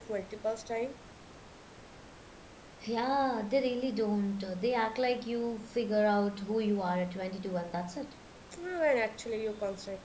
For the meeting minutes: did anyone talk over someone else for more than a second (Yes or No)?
No